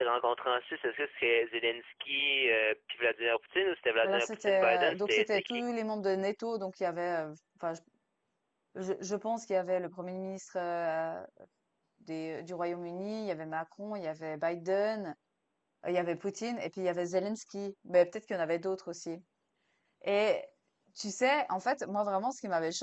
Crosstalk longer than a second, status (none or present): present